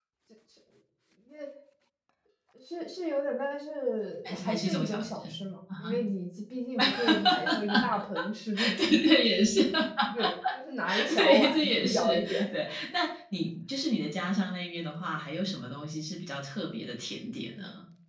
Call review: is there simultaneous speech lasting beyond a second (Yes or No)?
Yes